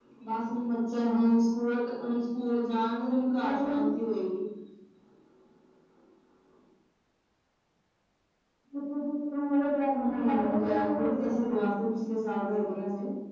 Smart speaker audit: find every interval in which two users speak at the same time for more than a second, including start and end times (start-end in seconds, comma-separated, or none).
10.1-11.7